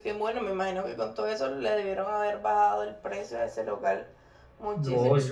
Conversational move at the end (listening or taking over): taking over